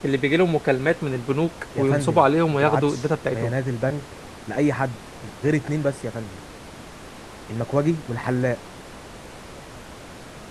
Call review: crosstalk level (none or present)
present